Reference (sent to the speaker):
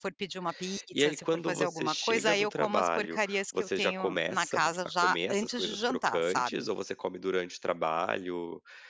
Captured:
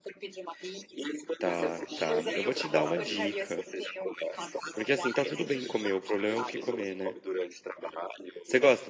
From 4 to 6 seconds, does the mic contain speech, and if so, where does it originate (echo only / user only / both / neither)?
both